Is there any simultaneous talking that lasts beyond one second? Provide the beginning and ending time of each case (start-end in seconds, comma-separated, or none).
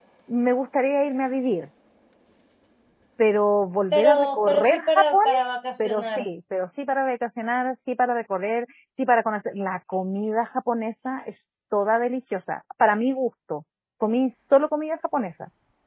3.9-5.2